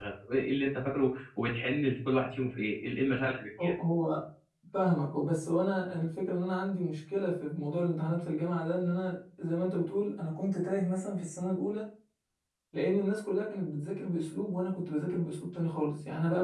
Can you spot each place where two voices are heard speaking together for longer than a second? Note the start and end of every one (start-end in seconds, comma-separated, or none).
none